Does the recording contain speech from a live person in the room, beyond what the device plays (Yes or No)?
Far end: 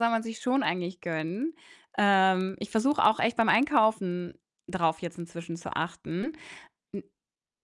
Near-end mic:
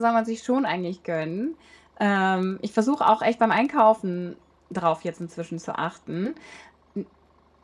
No